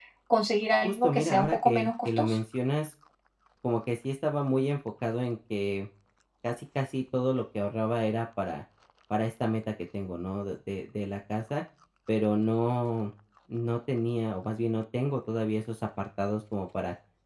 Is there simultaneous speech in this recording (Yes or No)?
Yes